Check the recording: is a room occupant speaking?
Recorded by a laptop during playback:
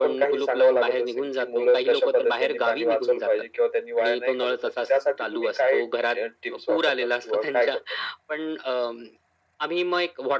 No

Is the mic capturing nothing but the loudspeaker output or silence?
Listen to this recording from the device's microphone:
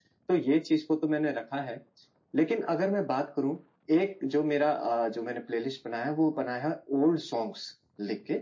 Yes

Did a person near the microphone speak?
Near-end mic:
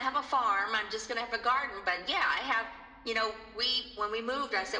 No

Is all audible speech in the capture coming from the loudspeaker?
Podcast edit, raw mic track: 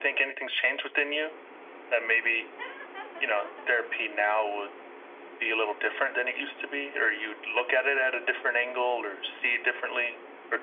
Yes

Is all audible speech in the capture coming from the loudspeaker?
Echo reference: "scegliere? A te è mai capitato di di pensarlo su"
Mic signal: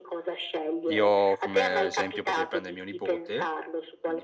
No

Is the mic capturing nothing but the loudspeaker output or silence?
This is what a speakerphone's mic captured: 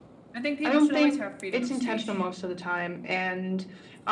No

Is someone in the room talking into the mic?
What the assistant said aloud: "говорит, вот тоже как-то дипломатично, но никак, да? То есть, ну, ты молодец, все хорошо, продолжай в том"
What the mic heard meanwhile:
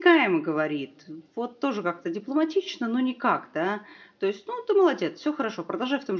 No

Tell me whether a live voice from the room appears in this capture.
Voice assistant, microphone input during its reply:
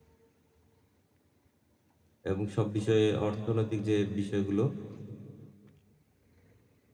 Yes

